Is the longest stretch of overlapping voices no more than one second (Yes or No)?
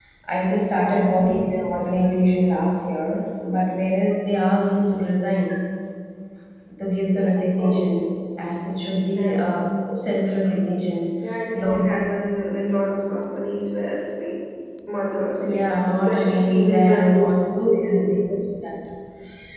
No